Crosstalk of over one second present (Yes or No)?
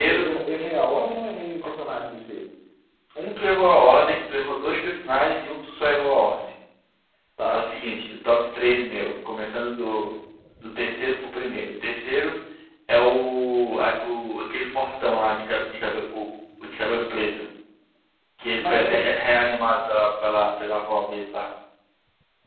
No